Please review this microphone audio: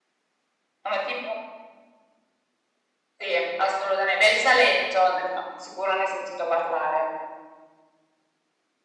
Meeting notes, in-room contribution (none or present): none